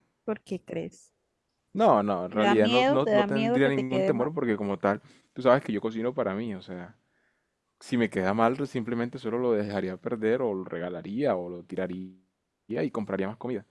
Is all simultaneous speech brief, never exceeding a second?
No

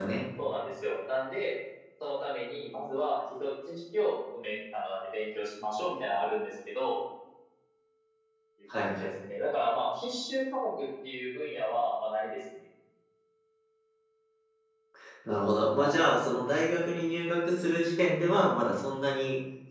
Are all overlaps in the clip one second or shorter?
Yes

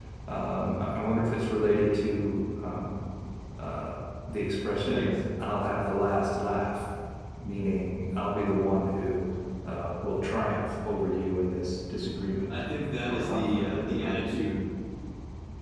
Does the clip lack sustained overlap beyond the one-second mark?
No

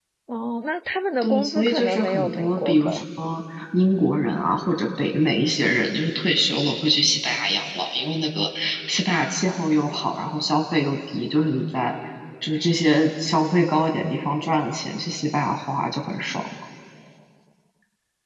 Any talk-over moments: Yes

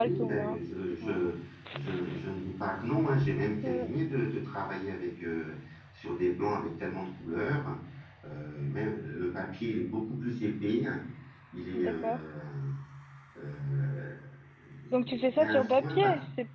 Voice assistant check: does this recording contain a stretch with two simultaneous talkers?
Yes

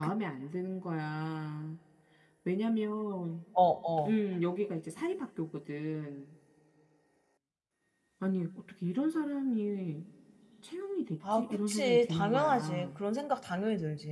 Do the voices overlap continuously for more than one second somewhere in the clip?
Yes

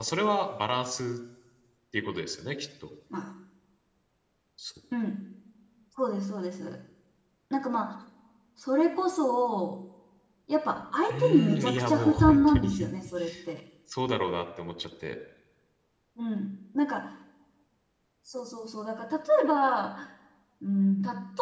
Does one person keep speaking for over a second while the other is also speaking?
Yes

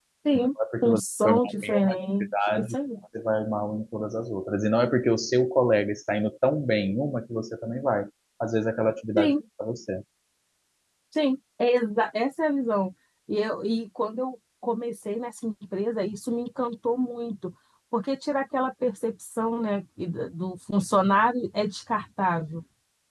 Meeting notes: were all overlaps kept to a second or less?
No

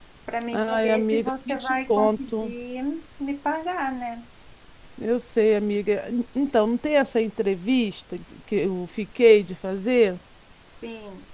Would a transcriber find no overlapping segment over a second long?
No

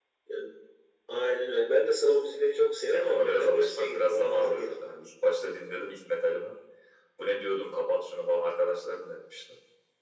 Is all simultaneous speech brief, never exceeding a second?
No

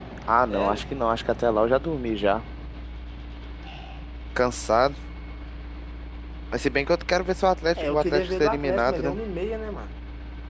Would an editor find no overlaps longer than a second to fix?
No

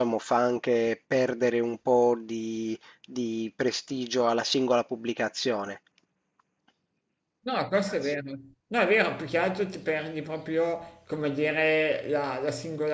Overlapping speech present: No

